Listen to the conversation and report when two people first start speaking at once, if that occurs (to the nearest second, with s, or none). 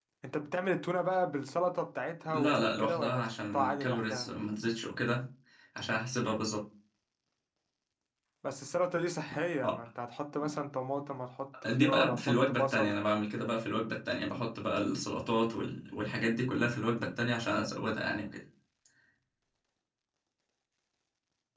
2 s